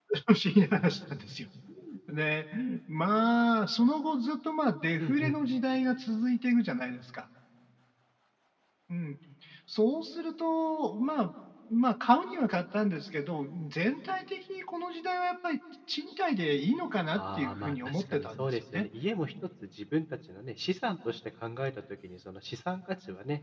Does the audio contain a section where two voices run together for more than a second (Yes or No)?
Yes